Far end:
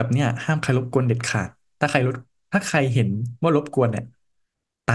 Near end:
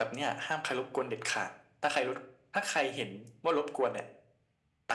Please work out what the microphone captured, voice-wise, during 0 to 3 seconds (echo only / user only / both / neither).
echo only